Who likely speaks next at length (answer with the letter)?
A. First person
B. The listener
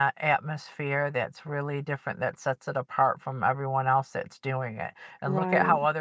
A